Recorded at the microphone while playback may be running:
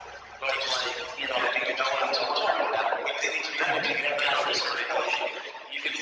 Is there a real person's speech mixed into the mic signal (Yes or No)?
Yes